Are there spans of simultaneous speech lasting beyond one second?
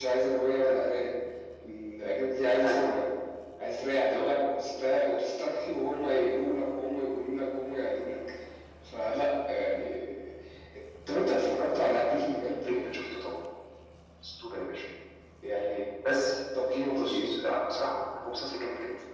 No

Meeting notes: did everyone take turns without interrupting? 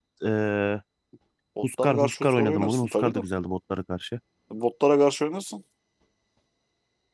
No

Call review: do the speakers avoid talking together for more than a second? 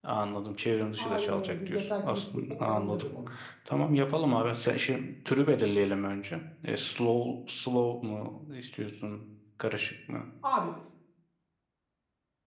No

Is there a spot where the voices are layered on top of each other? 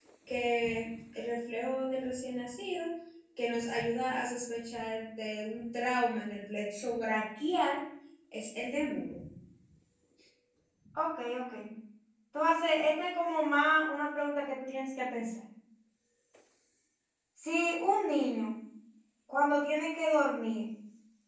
No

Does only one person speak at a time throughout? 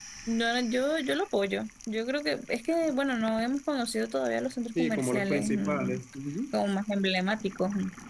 No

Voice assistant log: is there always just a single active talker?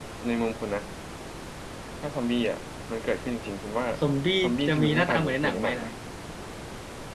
No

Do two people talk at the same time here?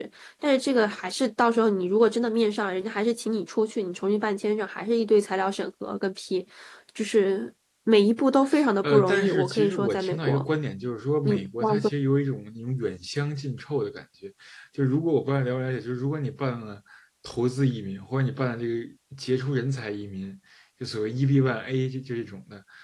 Yes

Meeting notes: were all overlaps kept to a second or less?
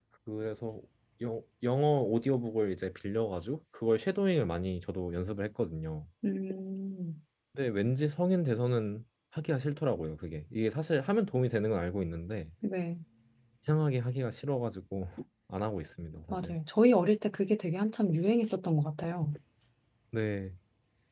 Yes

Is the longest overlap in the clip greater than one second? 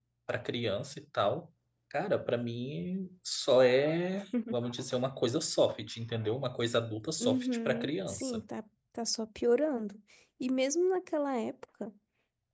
Yes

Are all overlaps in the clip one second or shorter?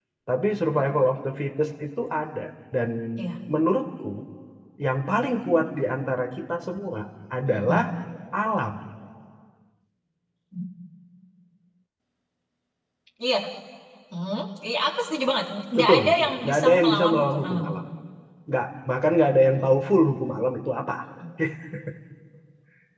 No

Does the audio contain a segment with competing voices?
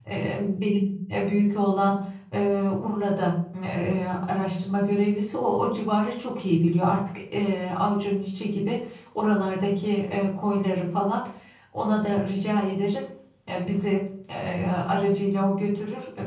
No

